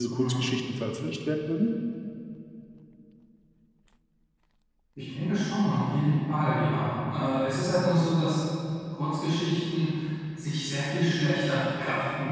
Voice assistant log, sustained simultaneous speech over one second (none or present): none